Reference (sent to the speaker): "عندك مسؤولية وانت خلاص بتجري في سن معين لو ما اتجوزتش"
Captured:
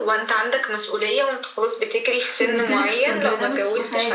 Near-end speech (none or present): present